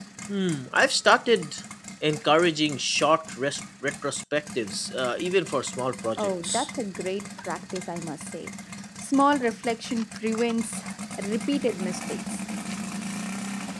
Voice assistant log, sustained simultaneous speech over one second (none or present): none